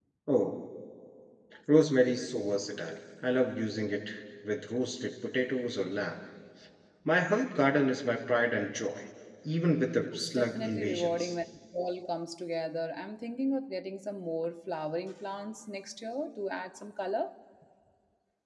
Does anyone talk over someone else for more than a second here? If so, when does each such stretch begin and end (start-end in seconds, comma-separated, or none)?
10.1-11.3